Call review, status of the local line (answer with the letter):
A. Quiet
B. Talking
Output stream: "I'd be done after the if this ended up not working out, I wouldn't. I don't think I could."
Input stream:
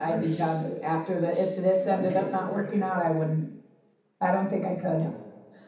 B